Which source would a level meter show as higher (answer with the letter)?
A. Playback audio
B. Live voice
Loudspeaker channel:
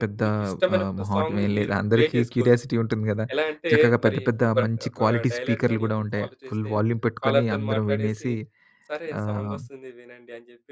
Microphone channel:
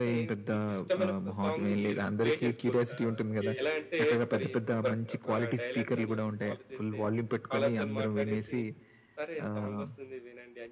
A